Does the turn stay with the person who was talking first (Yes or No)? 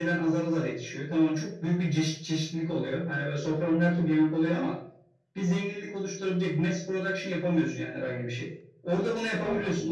Yes